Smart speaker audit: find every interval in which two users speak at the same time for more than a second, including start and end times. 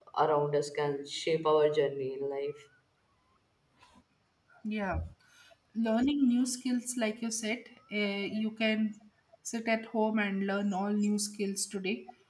none

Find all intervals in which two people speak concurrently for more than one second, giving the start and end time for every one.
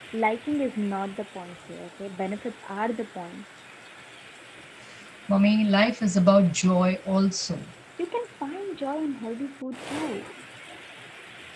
none

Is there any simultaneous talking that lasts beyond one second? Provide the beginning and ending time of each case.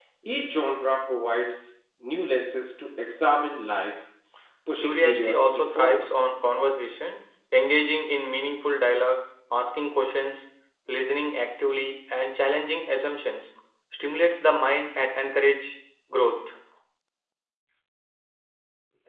4.8-6.1

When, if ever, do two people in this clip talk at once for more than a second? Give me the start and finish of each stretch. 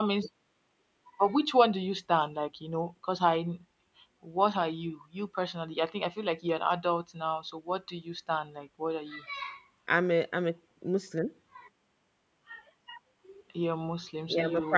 none

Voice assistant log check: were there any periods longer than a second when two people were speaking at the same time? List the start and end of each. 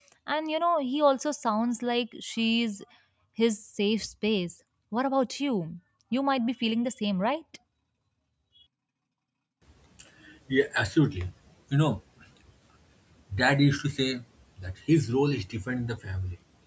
none

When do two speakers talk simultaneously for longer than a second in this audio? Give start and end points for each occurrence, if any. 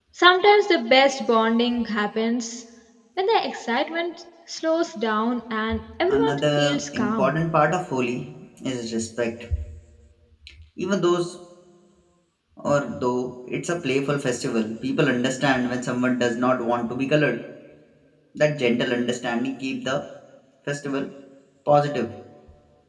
6.1-7.3

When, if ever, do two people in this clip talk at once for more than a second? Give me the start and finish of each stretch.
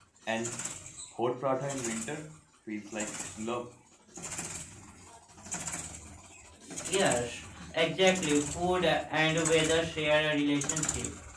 none

